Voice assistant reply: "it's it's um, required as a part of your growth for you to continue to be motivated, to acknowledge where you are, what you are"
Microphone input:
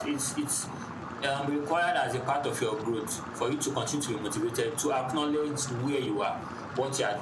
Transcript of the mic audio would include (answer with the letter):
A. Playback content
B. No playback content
A